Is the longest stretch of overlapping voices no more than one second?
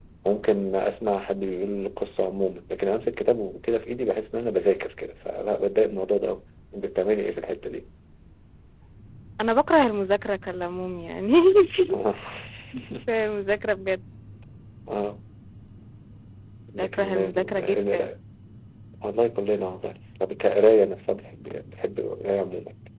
No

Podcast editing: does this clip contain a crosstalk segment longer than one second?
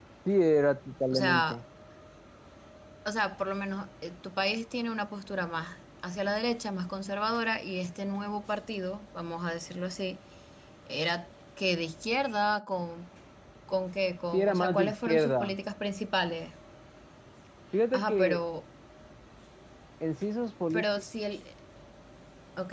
Yes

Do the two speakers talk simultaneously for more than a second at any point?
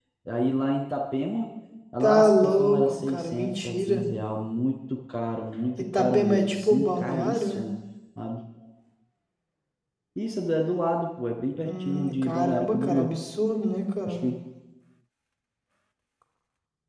Yes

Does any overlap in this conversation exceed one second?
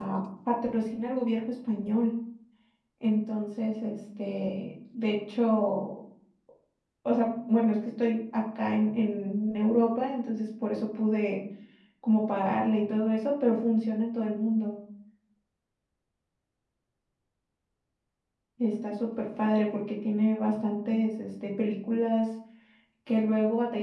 No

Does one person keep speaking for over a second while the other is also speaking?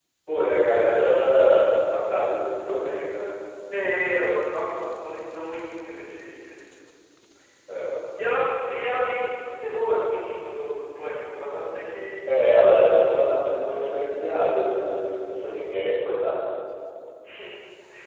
No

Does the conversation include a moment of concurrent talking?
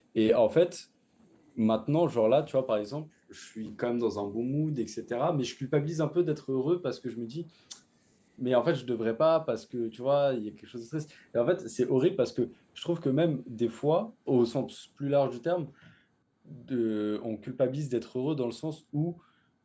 No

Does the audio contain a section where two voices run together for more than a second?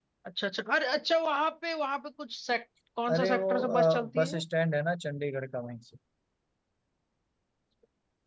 Yes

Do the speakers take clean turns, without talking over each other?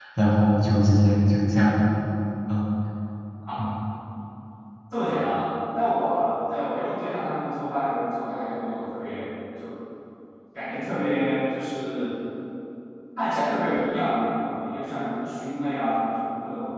Yes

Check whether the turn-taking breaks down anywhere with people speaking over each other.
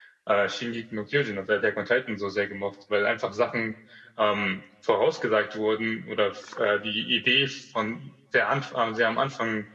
No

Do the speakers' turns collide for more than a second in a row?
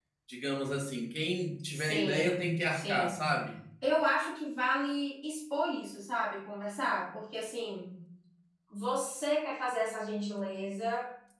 Yes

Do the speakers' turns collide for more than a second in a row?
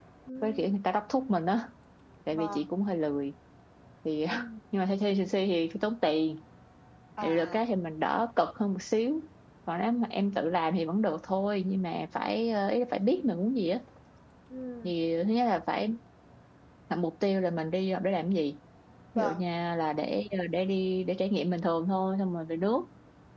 No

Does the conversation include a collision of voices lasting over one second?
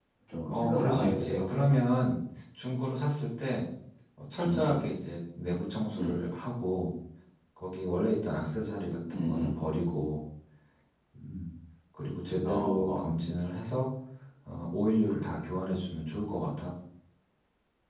Yes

